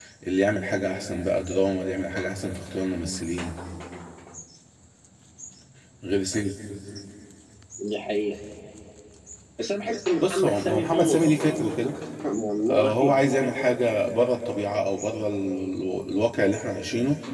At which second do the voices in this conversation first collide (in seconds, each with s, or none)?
10.2 s